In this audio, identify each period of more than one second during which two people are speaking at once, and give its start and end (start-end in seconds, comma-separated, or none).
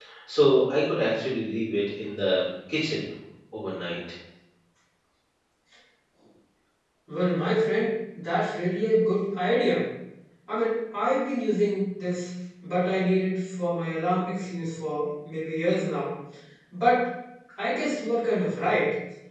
none